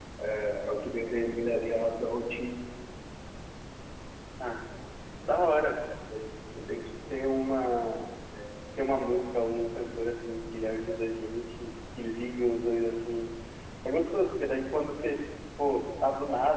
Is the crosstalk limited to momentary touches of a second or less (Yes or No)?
Yes